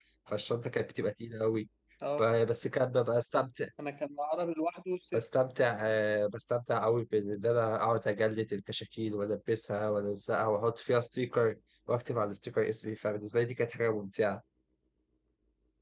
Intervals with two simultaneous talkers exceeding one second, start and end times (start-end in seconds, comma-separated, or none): none